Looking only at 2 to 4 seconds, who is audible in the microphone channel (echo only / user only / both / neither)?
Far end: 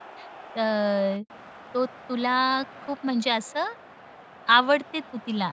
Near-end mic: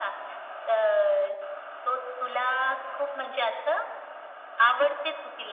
echo only